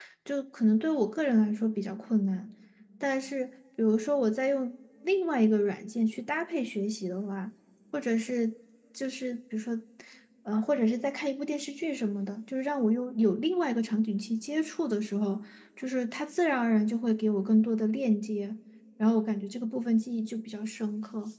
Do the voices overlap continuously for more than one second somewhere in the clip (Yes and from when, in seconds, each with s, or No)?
No